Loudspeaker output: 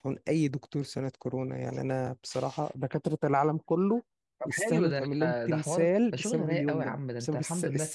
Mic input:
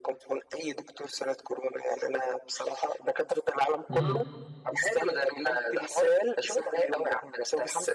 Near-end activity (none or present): present